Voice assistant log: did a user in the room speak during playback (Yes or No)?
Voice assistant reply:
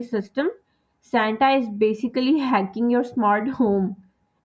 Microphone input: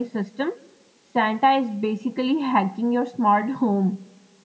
No